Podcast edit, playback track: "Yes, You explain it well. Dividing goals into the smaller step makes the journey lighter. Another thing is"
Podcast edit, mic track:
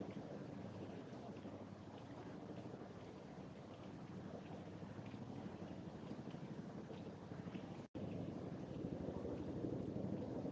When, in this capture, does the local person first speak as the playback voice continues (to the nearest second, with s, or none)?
none